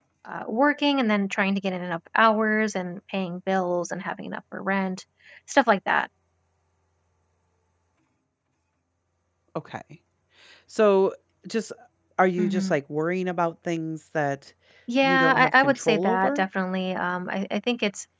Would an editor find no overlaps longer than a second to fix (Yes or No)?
No